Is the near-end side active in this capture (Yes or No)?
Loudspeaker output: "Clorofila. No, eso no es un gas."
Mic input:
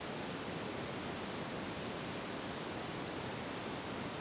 No